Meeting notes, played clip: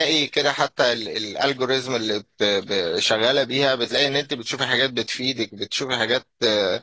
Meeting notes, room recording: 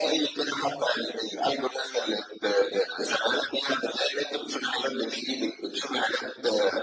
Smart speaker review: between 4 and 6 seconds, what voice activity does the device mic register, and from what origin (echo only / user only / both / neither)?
echo only